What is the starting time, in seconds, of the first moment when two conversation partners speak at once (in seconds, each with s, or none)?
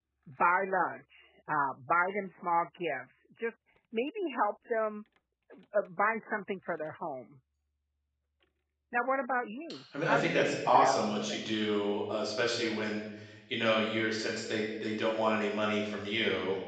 9.9 s